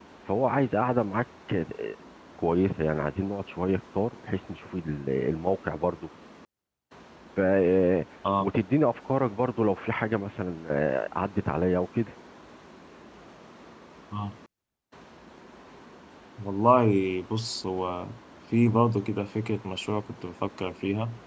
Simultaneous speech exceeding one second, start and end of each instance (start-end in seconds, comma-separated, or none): none